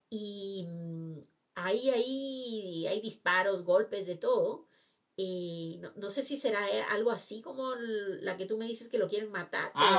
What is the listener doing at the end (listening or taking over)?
taking over